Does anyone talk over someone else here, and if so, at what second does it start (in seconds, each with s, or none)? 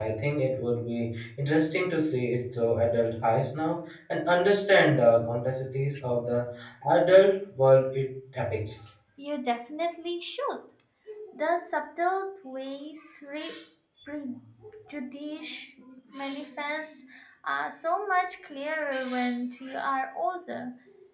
none